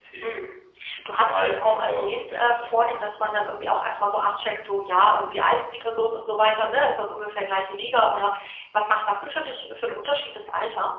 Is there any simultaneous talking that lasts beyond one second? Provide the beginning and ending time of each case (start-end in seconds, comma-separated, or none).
1.1-2.7